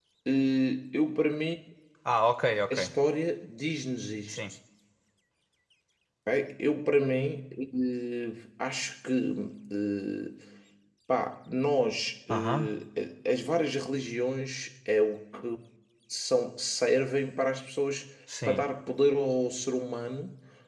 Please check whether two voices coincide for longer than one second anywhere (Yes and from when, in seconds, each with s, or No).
No